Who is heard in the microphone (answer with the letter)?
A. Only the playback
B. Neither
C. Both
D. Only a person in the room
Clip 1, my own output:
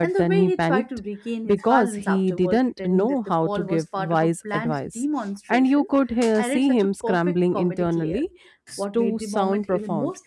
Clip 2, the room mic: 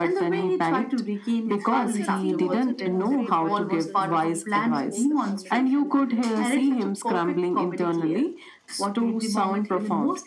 C